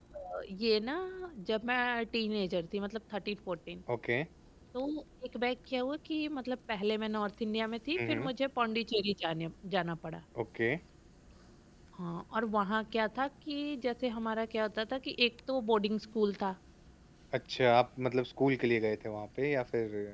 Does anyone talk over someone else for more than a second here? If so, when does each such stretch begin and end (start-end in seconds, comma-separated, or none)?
none